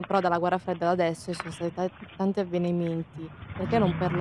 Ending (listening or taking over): listening